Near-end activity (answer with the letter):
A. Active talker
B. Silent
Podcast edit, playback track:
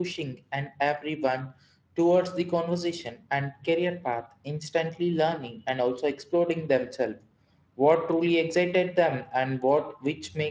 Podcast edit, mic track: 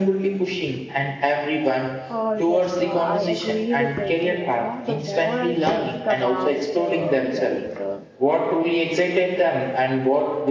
A